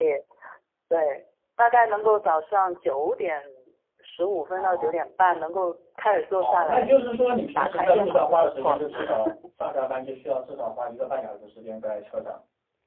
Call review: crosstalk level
present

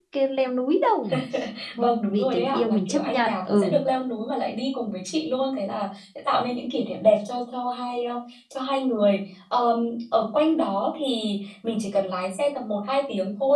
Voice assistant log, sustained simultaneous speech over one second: present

